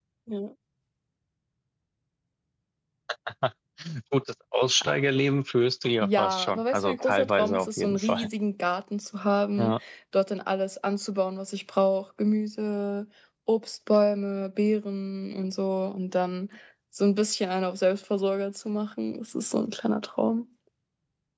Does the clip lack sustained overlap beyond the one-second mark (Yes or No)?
No